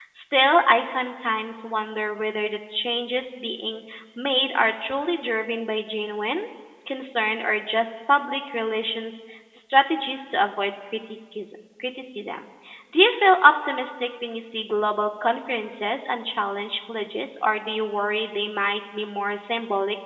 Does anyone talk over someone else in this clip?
No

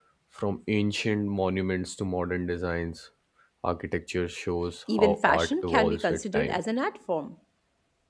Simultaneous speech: Yes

